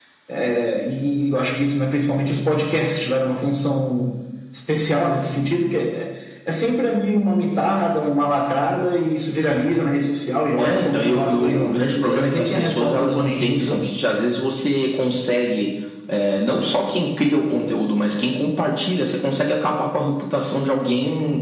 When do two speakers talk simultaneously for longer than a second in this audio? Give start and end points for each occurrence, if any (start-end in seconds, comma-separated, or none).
10.6-13.8